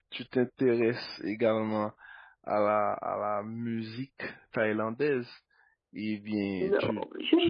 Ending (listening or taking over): taking over